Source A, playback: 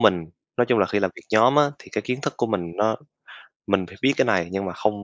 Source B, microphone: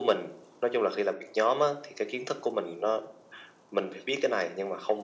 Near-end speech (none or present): none